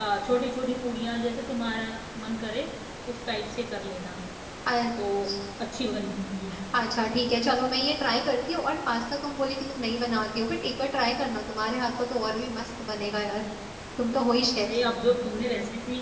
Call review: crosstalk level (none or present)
none